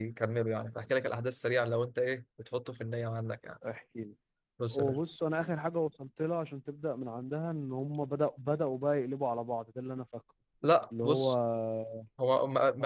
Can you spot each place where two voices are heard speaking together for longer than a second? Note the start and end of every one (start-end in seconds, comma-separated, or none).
none